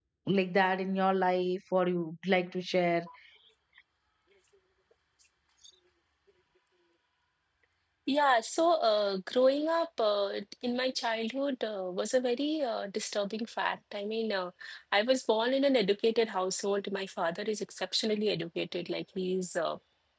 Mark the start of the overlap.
none

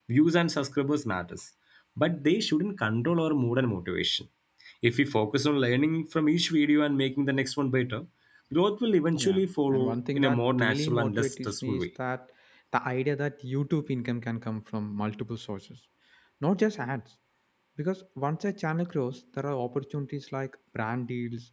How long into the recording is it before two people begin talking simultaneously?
9.1 s

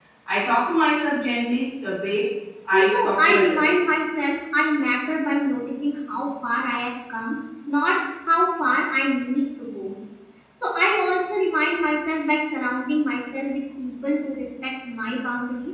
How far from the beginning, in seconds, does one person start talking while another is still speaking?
2.7 s

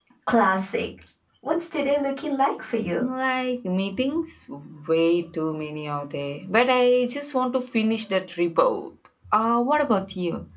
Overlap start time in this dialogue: none

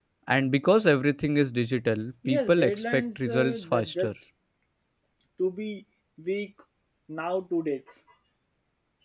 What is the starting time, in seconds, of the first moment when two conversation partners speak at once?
2.2 s

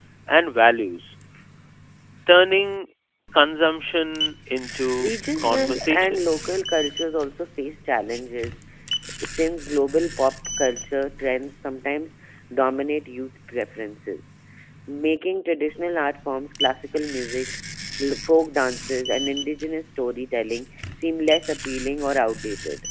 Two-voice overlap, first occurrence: 5.0 s

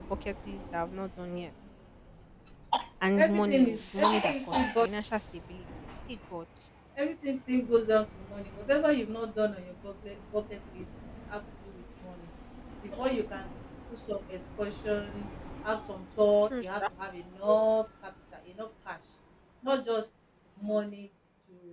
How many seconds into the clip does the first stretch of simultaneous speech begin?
3.1 s

